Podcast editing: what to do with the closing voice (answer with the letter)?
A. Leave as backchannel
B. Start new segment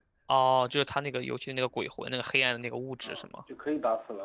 B